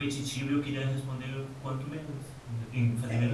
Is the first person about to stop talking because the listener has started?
Yes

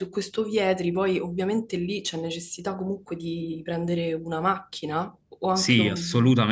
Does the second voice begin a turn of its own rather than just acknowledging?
Yes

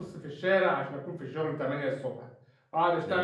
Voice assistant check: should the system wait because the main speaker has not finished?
Yes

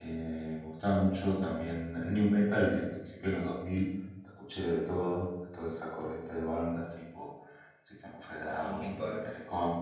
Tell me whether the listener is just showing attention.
Yes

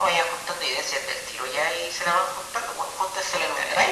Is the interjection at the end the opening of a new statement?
No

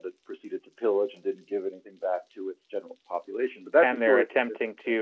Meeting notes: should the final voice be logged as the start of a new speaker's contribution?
Yes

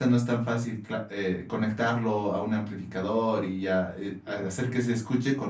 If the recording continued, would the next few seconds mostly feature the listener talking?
No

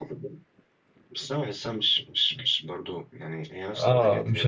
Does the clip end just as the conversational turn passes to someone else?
Yes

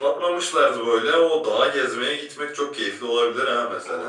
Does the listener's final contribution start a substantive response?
Yes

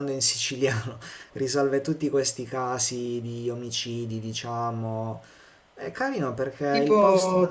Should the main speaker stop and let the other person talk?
Yes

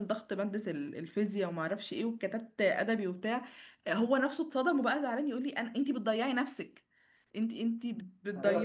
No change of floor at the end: No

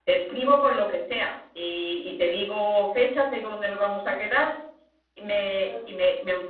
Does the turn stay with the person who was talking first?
Yes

